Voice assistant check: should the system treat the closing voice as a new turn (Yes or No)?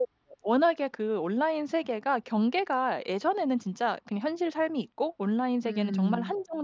No